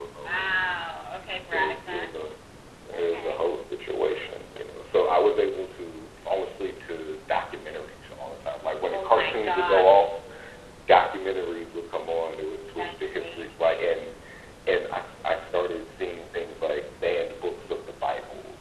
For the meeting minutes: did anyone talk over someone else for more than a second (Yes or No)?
Yes